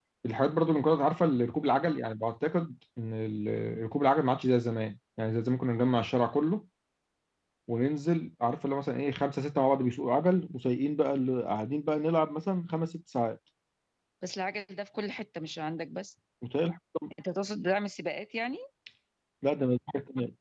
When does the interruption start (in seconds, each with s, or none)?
none